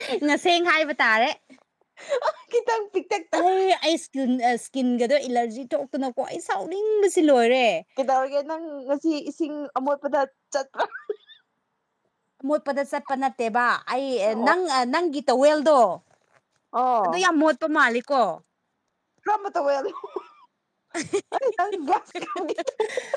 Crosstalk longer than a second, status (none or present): none